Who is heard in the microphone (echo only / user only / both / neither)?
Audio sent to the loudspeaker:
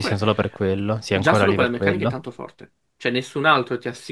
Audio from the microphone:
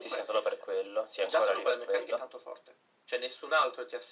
echo only